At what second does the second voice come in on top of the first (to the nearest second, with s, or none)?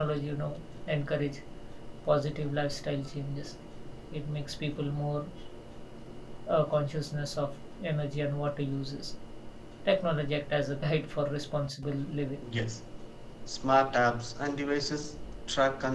none